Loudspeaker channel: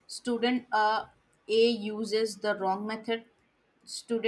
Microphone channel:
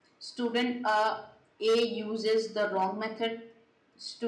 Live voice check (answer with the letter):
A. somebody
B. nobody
B